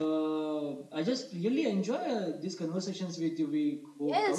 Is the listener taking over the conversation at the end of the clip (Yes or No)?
Yes